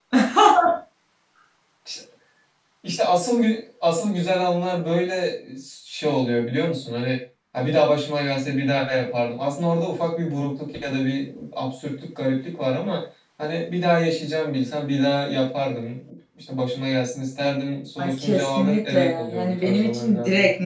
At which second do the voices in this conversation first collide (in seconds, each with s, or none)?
18.0 s